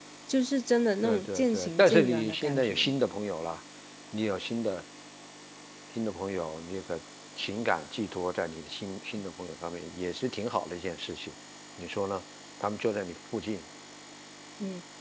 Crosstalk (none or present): present